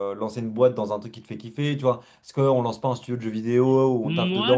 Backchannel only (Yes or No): No